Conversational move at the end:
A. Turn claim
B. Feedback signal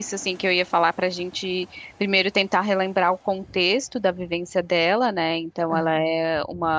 B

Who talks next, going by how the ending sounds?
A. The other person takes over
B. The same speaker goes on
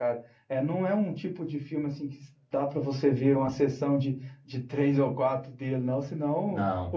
B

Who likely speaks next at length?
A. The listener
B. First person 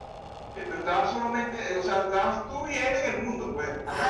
A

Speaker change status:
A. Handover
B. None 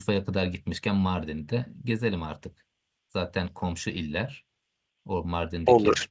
B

